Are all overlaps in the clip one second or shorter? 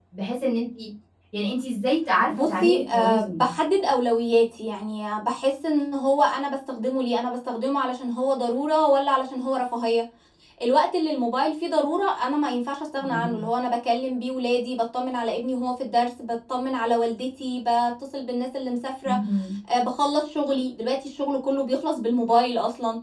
No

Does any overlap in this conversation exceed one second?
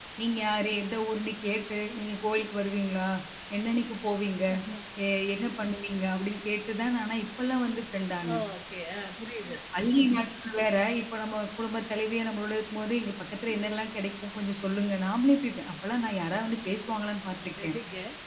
No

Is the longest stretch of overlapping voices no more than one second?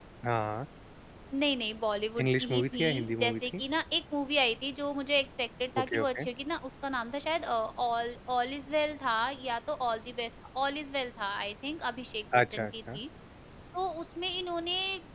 No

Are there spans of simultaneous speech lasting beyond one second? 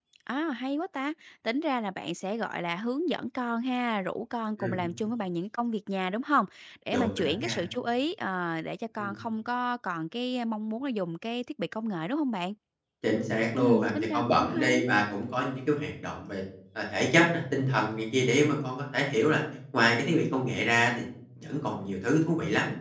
Yes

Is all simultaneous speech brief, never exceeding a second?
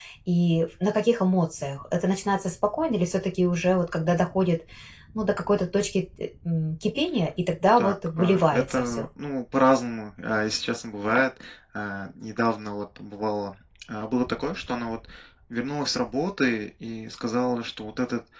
No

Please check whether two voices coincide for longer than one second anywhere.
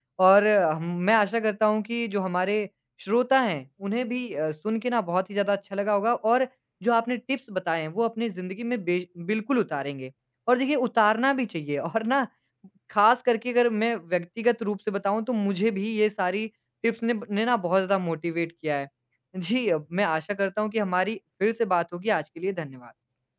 No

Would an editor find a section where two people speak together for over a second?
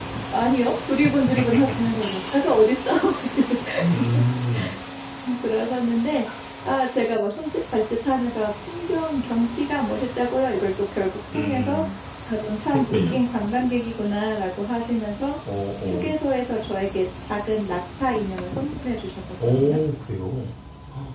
No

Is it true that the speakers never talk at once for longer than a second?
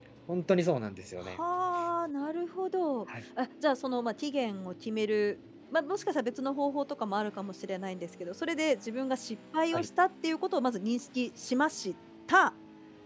Yes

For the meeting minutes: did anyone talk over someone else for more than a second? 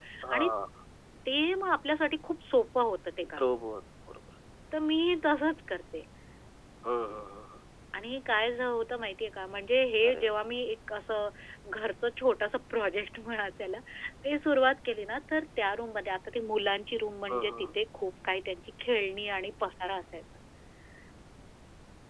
No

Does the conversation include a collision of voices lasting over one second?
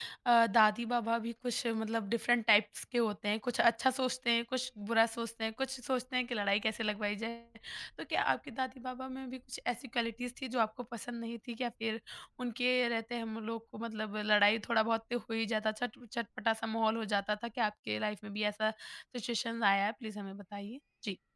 No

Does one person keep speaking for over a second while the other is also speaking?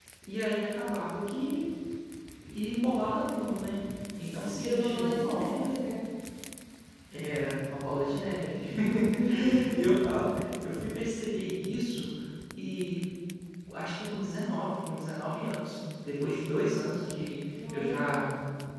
Yes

